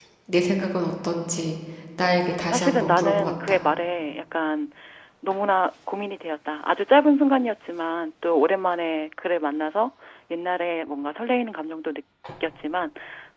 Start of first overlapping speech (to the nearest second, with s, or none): 2 s